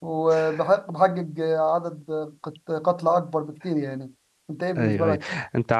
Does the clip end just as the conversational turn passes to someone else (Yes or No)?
Yes